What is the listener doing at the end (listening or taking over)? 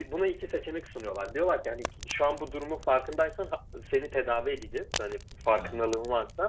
listening